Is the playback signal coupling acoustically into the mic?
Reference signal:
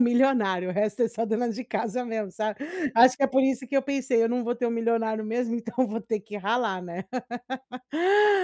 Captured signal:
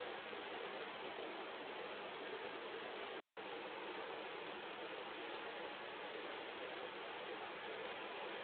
No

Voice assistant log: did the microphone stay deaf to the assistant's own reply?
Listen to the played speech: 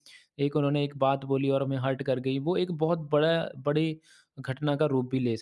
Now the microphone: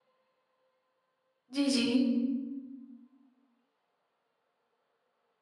Yes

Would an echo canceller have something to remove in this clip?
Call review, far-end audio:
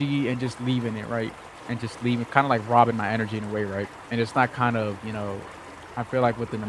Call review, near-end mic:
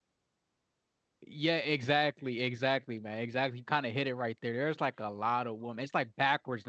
No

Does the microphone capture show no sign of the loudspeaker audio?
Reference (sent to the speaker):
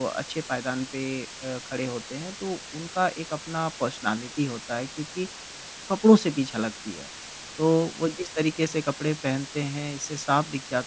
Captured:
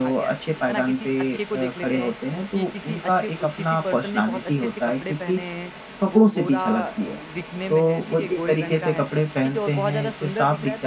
No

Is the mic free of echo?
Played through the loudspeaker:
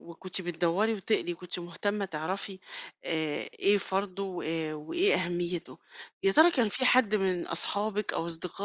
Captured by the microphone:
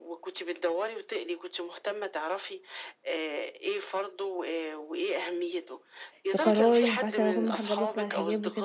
No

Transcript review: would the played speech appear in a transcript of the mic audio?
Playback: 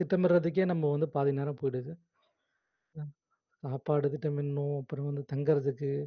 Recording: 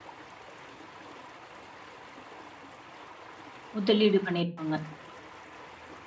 No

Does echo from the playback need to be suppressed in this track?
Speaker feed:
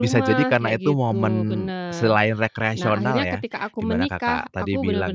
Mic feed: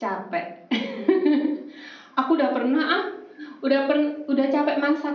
No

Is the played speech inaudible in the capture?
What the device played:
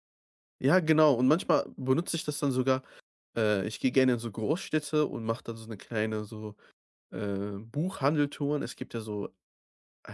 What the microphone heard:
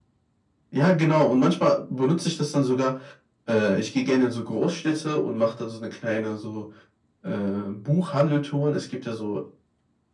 No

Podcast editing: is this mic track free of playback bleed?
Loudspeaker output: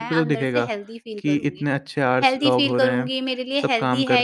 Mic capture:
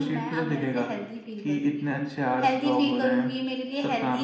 No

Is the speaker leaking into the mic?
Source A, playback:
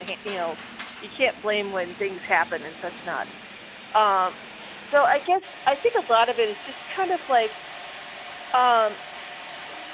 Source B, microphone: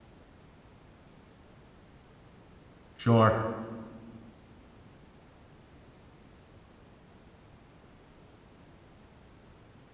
No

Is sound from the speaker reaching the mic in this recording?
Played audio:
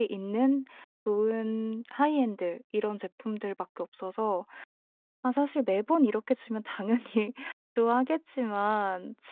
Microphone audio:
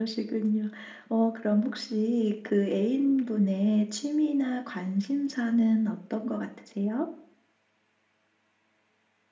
No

